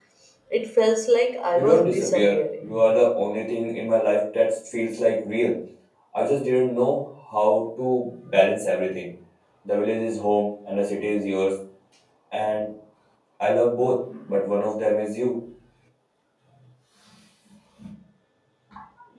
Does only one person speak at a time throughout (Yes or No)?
No